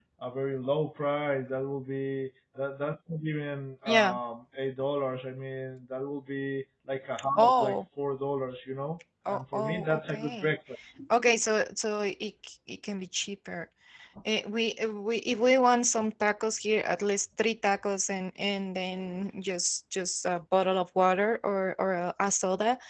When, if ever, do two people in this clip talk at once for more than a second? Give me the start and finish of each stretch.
9.3-10.5

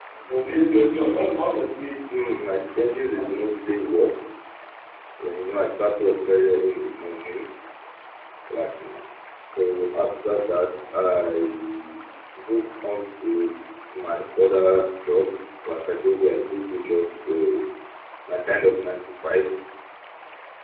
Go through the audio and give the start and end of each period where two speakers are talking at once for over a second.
2.2-3.8

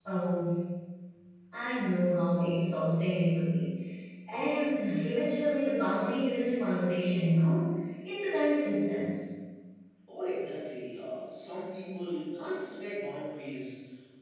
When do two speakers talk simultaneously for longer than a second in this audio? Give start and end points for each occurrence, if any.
none

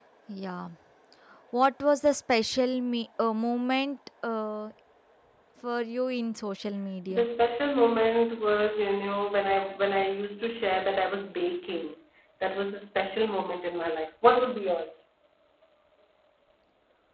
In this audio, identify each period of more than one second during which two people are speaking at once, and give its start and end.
none

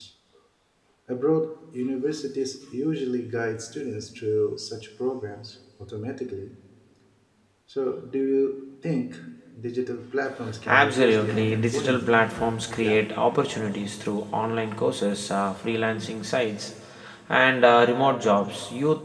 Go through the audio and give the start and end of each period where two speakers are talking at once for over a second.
10.7-12.1

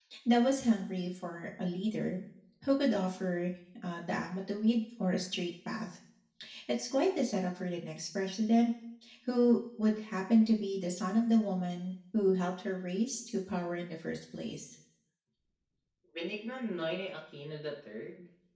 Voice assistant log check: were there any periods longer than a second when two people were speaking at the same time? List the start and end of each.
none

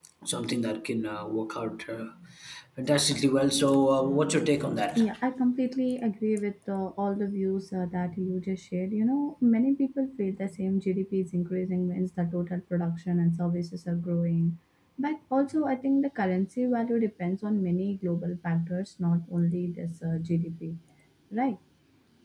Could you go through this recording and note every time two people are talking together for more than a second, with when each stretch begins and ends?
none

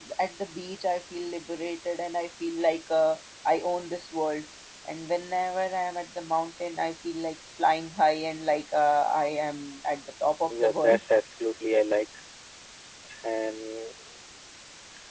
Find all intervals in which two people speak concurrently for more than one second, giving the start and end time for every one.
none

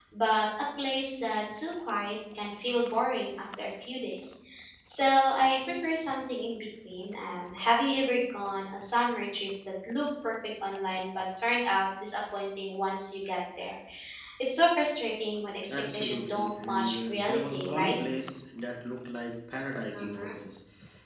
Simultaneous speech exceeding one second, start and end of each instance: 15.7-18.0

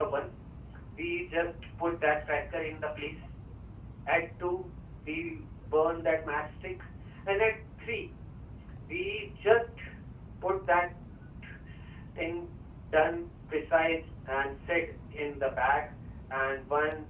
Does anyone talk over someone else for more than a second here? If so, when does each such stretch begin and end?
none

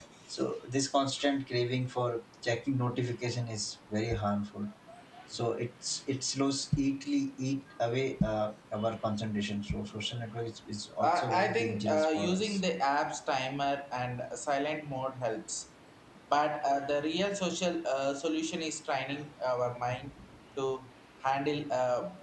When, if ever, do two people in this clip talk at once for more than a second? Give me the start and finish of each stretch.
11.0-12.6

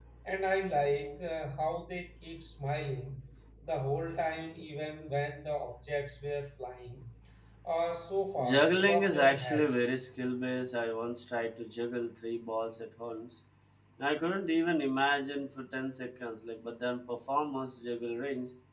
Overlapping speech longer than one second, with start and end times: 8.4-9.9

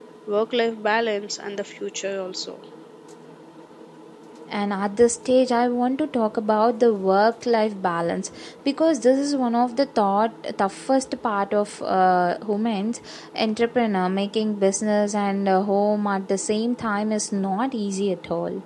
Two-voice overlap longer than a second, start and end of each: none

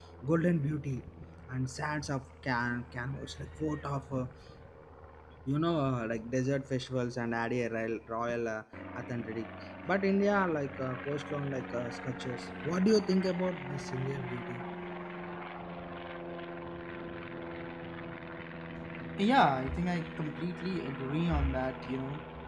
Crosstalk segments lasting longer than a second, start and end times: none

